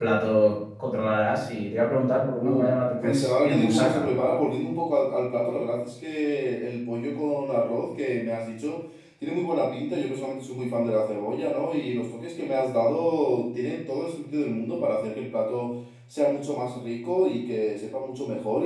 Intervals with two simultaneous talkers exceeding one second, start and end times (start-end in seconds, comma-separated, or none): 2.4-4.0